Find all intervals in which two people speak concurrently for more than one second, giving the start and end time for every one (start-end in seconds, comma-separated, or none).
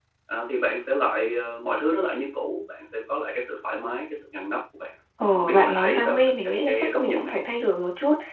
5.3-7.3